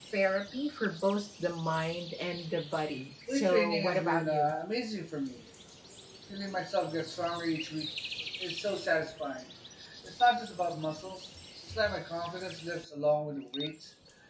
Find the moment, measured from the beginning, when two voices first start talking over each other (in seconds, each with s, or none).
3.3 s